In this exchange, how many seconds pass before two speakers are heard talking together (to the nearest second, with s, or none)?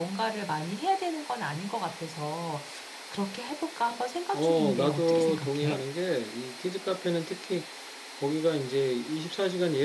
4 s